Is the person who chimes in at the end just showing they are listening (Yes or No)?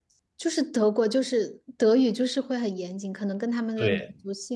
No